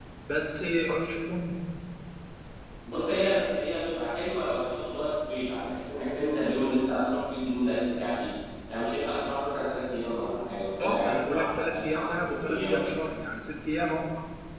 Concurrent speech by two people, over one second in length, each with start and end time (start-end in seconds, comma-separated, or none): 10.8-12.9